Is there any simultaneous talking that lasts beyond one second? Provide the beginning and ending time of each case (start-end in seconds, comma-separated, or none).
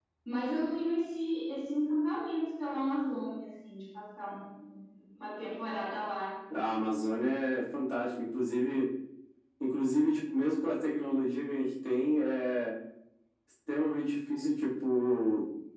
none